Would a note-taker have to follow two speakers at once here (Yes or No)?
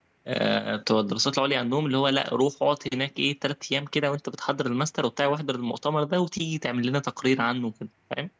No